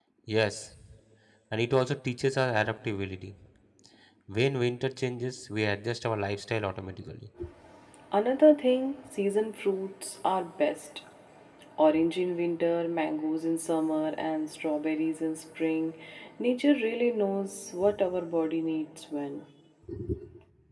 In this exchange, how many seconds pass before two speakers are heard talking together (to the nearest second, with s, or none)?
none